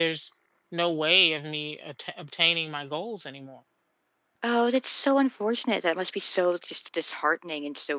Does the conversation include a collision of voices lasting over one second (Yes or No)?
No